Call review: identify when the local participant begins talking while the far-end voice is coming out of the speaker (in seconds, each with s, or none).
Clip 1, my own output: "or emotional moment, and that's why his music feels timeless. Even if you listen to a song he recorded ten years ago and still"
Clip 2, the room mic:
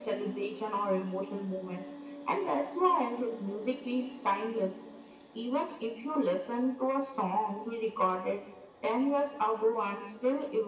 none